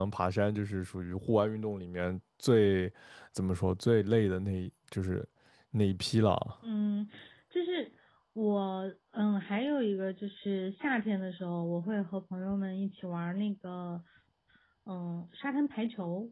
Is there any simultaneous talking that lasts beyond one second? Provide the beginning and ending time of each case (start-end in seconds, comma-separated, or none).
none